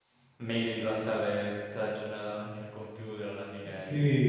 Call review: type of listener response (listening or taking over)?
taking over